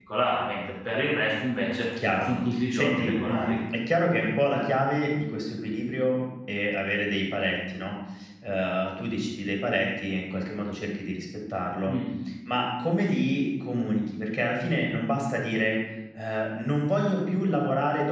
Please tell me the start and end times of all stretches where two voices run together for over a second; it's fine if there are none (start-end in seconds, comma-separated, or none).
2.2-3.6